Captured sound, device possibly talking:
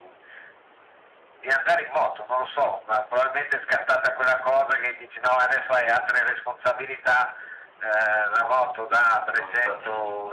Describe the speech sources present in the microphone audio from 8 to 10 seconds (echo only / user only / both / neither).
both